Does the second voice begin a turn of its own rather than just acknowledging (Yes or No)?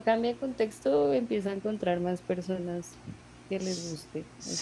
Yes